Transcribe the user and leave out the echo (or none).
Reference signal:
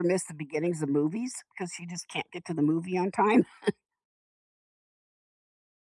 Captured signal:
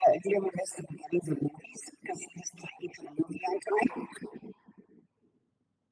none